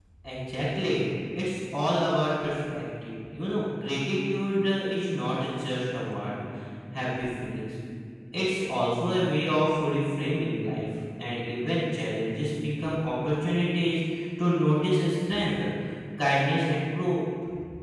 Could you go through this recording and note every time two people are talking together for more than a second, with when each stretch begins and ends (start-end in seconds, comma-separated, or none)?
none